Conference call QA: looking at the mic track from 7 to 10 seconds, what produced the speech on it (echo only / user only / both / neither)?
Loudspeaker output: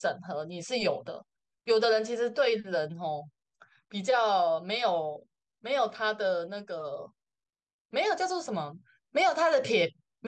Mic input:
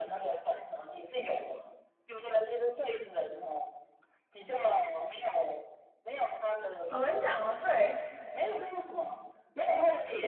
both